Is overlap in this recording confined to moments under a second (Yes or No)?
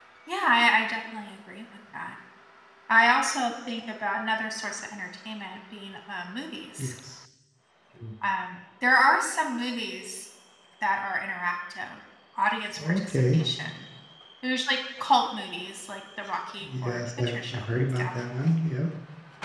No